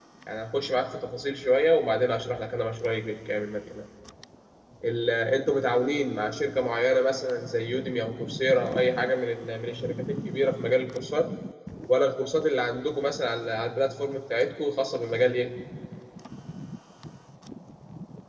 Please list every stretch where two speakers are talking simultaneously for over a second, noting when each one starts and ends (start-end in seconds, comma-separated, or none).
none